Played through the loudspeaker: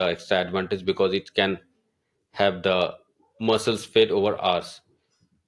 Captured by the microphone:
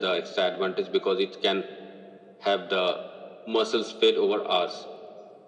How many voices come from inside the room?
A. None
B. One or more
A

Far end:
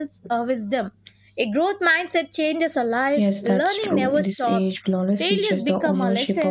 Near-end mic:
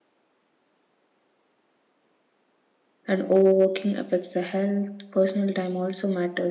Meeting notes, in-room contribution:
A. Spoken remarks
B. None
A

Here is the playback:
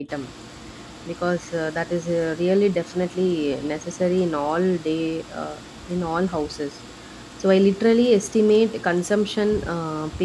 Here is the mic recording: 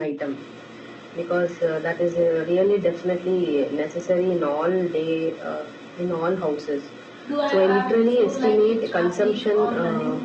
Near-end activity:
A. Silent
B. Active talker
B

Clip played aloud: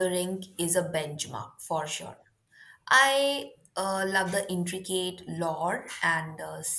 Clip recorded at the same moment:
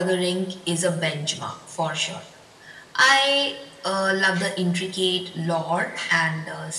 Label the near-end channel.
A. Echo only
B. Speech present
A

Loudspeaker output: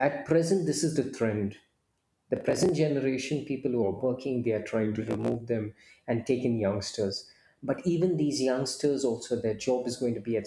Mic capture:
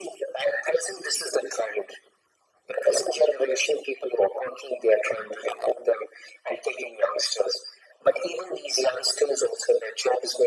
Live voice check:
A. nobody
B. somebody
A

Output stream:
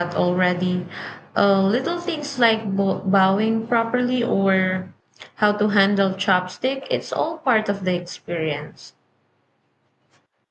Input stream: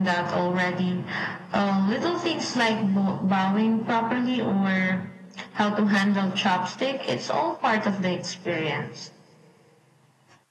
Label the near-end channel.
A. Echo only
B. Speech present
A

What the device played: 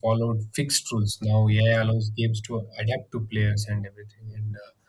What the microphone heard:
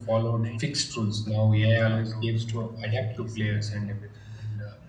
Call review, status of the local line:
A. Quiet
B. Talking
B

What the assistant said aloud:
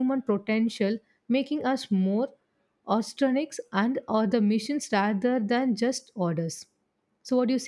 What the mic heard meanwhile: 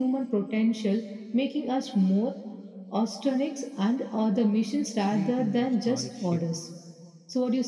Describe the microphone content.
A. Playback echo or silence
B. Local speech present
B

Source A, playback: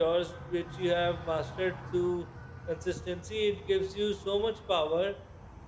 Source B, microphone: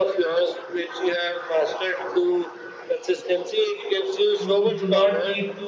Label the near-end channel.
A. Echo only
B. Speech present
B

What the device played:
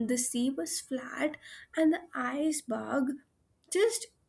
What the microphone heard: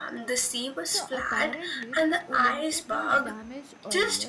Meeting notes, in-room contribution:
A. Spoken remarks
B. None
A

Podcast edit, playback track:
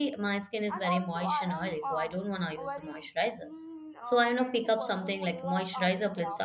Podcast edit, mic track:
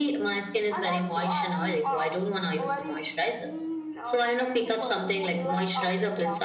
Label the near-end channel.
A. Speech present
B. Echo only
B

